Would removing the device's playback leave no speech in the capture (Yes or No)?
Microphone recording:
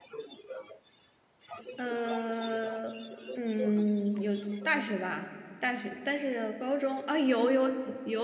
No